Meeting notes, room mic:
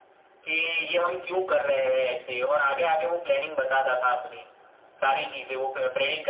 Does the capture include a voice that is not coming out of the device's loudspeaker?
No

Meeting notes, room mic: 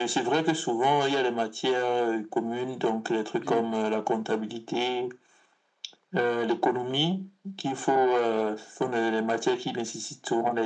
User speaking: Yes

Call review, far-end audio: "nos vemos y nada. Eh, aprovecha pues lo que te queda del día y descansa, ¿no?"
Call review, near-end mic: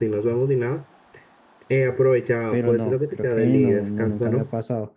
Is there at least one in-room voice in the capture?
Yes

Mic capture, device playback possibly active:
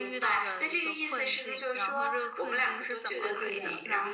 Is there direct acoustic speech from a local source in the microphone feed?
Yes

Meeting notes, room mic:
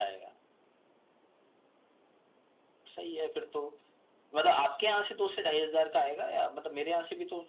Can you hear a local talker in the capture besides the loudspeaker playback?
No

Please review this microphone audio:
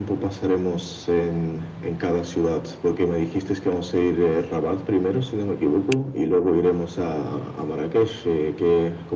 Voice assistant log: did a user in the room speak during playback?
No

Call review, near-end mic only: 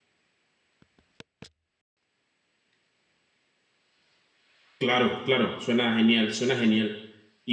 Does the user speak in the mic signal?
Yes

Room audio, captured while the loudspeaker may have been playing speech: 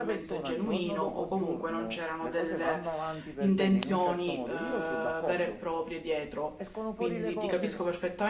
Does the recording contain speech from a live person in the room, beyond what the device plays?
Yes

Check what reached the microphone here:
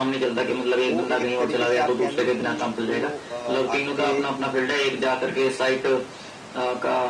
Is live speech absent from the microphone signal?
No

